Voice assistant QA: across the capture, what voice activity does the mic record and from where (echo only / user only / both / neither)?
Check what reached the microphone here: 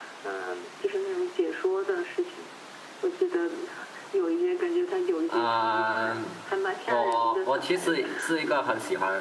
both